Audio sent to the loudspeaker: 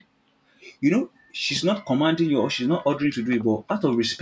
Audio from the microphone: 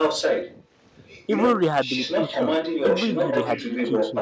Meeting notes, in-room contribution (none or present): present